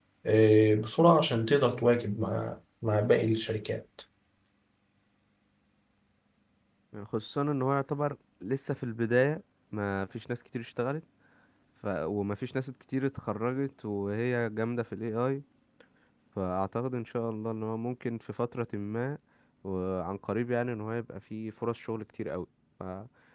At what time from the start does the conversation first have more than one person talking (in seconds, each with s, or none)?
none